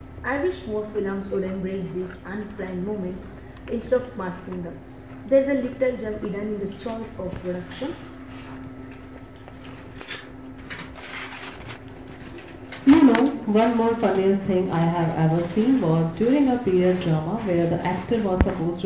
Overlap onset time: none

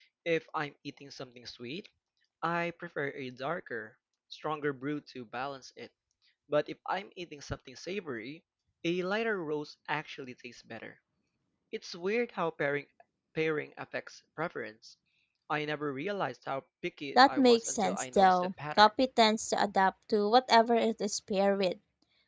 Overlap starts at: 17.1 s

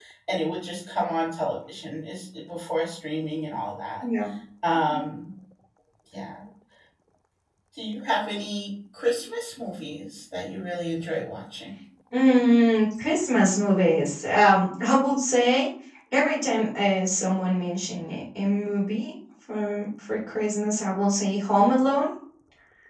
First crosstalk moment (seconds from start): none

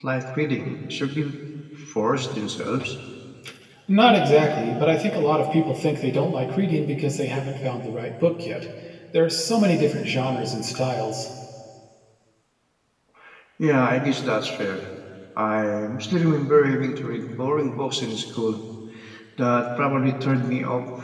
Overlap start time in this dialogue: none

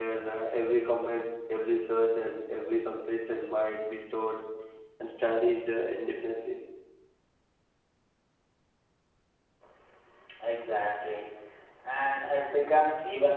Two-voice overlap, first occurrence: none

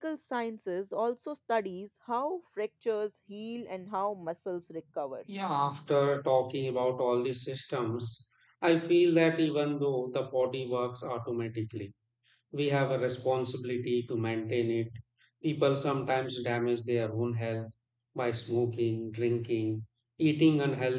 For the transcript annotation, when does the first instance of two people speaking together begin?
none

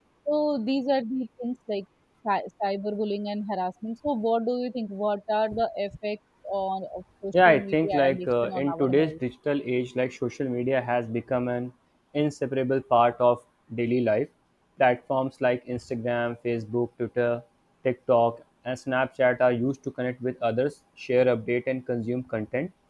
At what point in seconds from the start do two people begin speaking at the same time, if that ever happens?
7.3 s

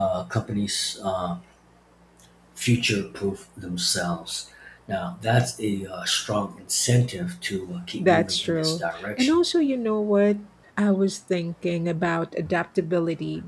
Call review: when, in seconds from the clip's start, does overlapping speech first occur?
8.0 s

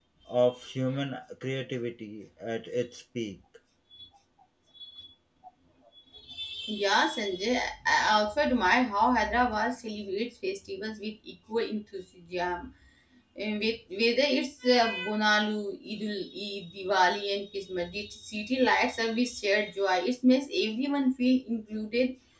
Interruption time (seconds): none

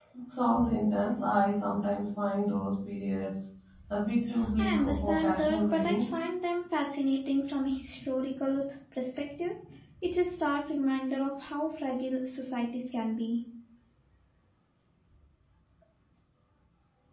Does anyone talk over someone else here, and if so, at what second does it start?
4.6 s

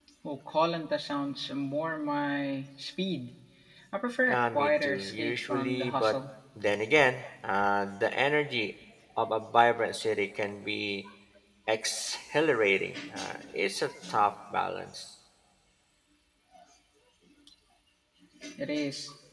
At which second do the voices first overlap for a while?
4.3 s

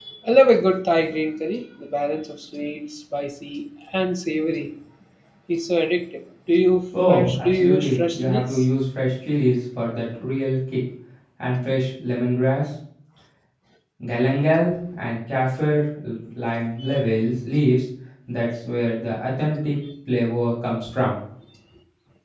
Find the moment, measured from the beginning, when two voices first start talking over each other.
6.9 s

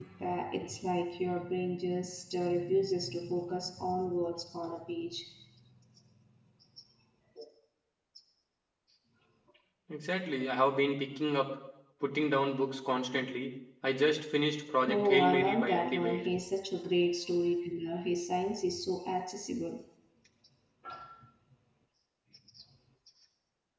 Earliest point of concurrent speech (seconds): 14.8 s

